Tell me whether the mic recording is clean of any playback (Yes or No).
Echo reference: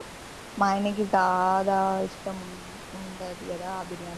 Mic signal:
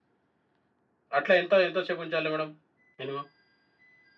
Yes